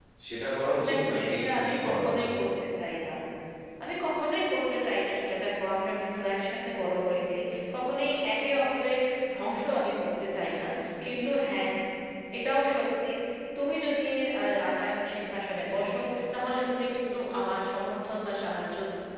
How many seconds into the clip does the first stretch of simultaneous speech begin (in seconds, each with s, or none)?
0.9 s